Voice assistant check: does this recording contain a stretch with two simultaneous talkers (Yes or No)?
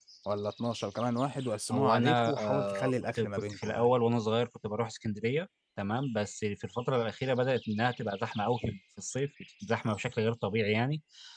Yes